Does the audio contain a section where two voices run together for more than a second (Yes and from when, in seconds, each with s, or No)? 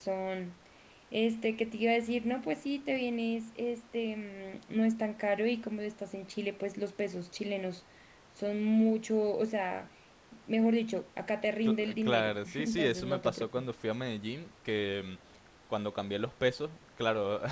Yes, from 11.6 s